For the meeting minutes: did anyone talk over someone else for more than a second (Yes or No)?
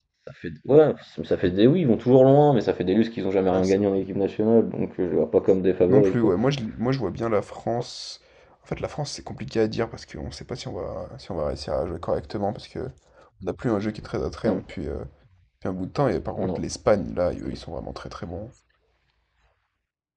No